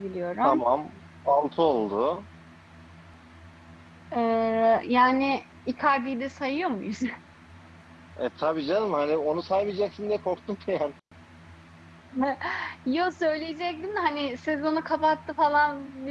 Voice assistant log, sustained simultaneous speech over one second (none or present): none